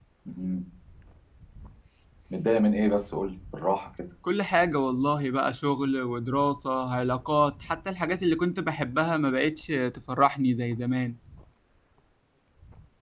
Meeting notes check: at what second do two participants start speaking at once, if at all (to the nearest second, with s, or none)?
none